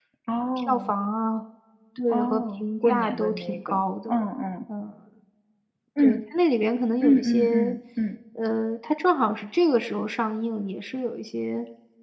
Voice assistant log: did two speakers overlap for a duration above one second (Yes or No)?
Yes